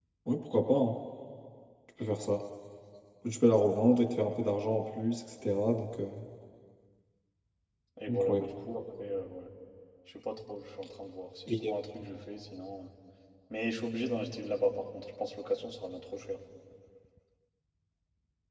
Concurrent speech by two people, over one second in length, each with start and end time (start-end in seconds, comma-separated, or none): none